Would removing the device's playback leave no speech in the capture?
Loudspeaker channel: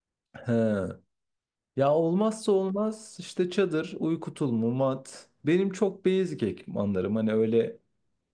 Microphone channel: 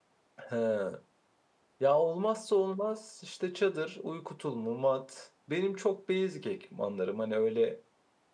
Yes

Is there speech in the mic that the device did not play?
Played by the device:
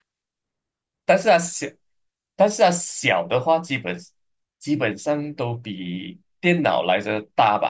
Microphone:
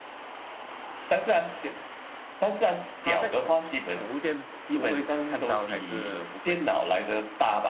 Yes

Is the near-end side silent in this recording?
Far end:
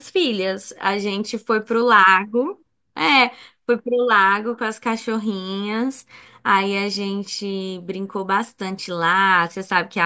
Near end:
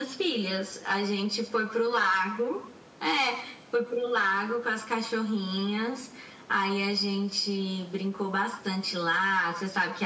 Yes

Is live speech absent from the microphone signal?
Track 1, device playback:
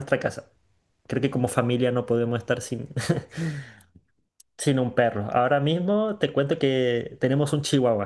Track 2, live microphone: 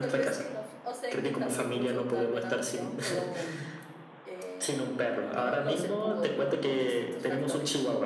No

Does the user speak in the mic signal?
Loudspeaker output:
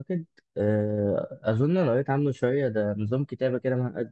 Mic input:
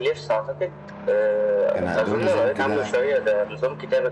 Yes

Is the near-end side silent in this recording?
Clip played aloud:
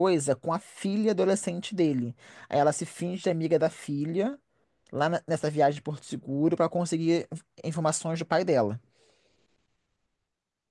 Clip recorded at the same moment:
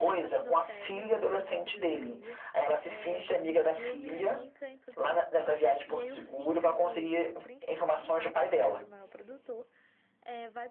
No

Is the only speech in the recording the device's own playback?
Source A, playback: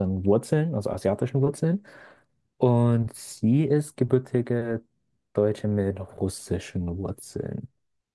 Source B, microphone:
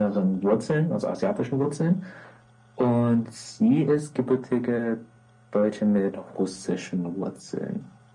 Yes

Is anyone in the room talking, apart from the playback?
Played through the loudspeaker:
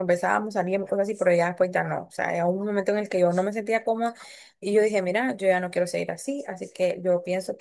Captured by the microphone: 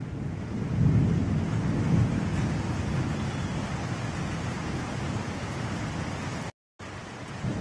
No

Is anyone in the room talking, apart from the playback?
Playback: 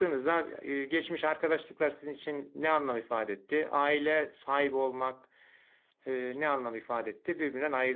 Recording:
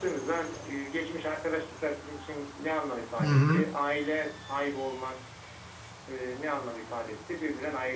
Yes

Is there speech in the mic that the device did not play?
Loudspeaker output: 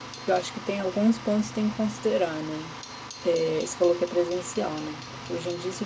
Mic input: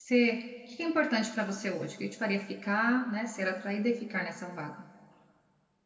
Yes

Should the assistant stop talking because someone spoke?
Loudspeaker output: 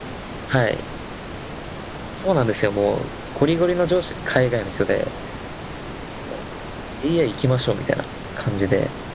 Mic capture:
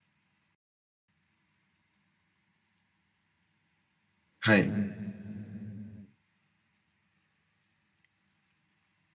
Yes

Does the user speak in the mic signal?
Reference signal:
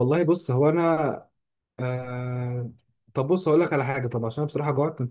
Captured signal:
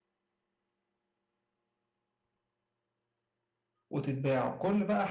Yes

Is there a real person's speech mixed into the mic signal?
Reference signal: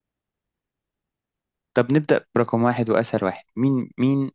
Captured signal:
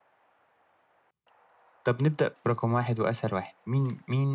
No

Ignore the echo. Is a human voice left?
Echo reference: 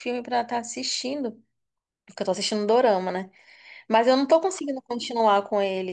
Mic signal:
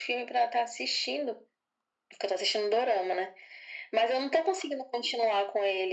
No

